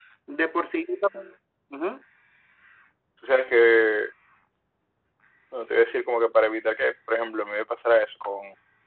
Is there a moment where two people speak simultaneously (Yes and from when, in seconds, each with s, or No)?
No